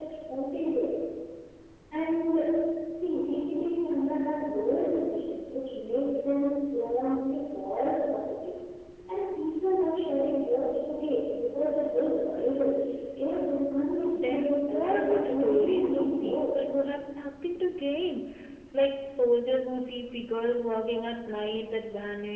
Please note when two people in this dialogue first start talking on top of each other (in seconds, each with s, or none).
14.1 s